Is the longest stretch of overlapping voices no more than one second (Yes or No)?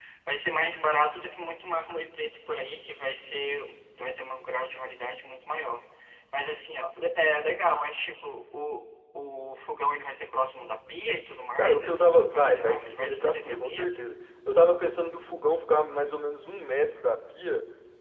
No